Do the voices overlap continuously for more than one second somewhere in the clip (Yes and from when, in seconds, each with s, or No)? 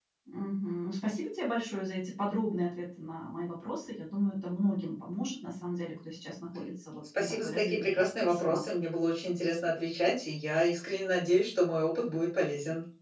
Yes, from 7.1 s